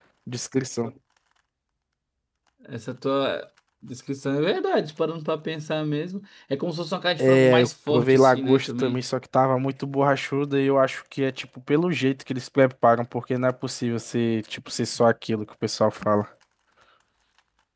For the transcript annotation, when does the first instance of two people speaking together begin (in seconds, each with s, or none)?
7.2 s